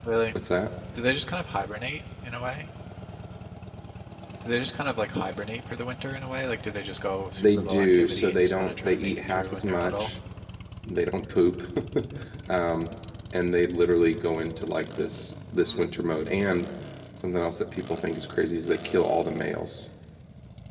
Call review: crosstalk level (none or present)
present